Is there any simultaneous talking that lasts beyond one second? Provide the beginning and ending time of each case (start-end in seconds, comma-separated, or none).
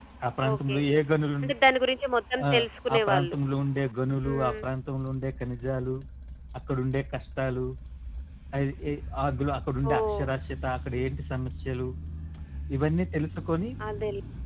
none